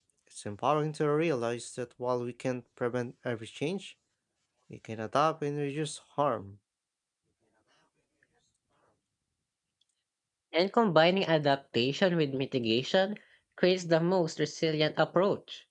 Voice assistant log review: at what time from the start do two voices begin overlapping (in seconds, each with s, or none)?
none